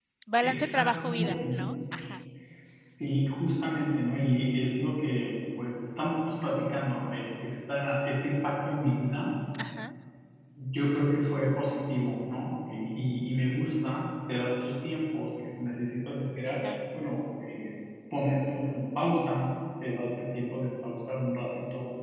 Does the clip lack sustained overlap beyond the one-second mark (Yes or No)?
No